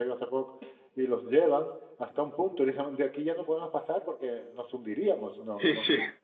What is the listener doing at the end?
listening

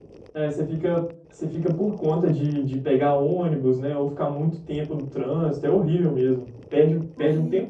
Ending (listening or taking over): listening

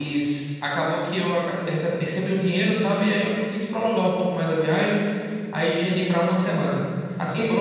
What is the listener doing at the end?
listening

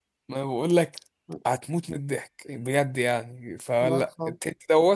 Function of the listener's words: listening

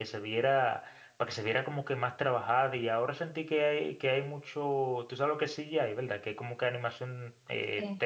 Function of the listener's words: taking over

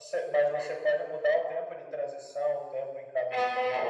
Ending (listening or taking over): taking over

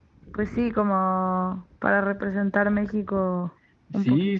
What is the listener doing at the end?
taking over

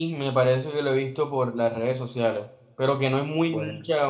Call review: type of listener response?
listening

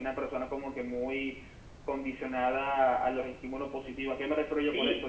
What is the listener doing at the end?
taking over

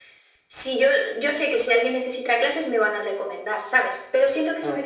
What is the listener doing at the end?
listening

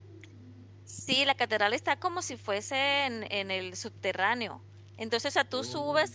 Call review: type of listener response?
listening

